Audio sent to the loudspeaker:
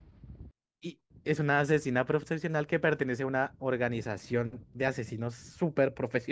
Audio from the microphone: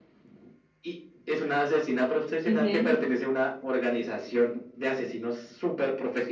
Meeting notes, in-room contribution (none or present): present